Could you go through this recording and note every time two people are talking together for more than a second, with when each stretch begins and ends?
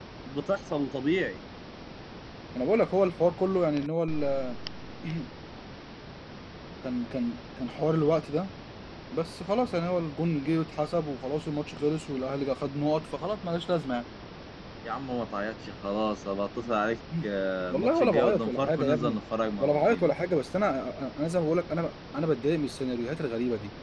17.7-19.2

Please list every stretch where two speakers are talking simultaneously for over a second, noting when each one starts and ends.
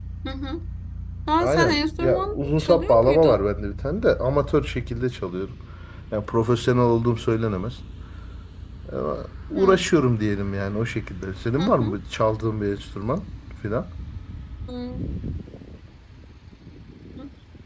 1.4-3.4

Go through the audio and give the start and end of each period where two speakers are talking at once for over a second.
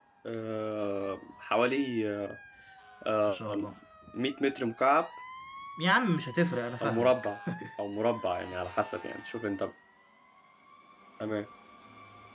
none

